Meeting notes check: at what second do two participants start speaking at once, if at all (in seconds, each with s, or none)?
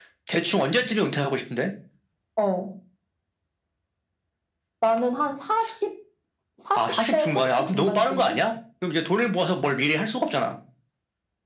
6.8 s